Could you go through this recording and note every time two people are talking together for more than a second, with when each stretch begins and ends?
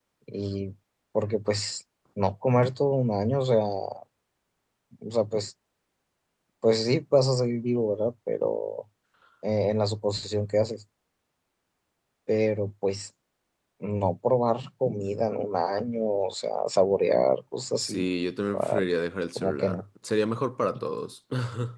none

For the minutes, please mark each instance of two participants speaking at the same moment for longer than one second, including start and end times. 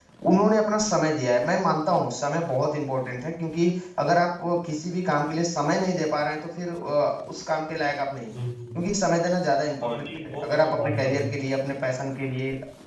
9.8-11.2

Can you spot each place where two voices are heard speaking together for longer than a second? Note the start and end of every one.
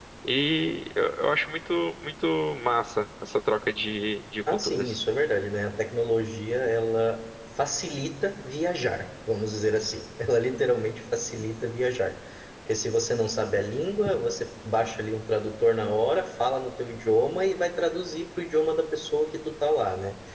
none

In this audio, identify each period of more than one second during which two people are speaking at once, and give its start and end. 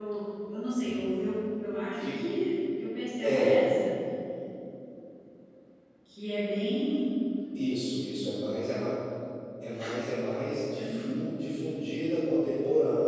none

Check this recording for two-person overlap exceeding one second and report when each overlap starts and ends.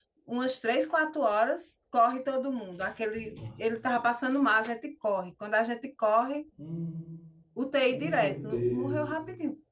7.9-9.2

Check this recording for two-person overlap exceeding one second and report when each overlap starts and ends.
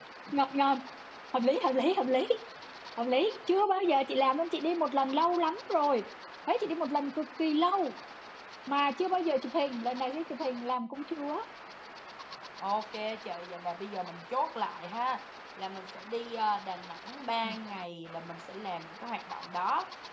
none

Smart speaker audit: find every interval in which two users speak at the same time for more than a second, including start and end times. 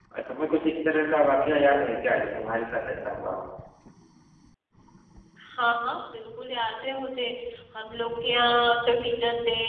none

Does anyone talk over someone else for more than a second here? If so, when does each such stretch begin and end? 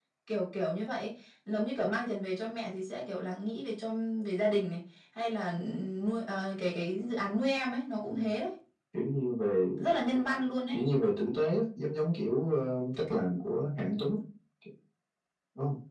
none

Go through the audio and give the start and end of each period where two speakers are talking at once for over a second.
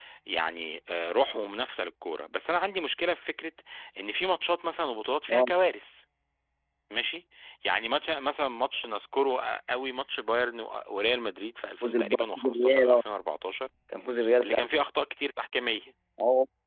11.8-13.0

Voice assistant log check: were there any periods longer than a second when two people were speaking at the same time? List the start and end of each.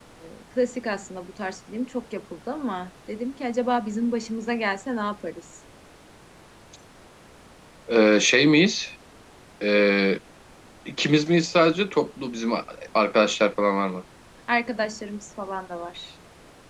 none

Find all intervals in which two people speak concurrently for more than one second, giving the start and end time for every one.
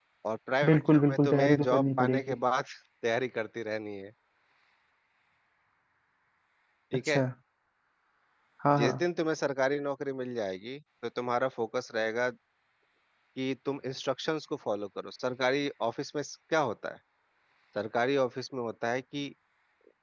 0.7-2.4

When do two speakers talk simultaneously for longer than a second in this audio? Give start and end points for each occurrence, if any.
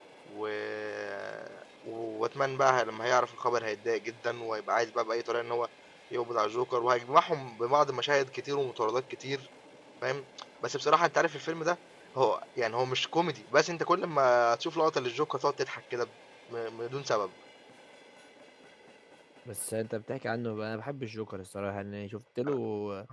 none

